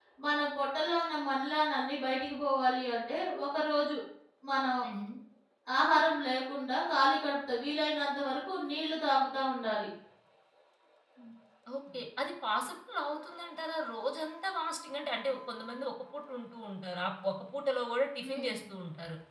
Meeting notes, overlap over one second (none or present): none